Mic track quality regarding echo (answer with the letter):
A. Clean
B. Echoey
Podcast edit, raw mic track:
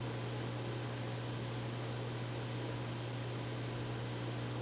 A